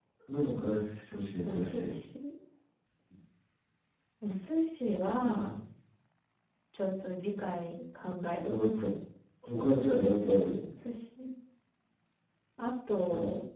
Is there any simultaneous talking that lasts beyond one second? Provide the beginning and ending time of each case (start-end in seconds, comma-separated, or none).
none